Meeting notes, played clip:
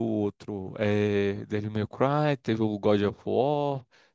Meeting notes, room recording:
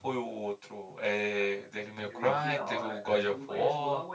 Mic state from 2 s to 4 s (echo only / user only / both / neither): both